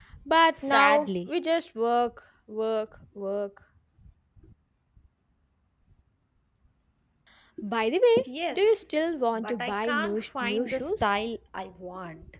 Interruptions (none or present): present